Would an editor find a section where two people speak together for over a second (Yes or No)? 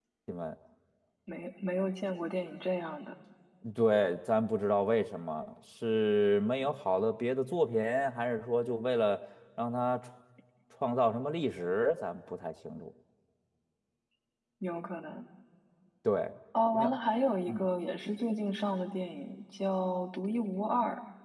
No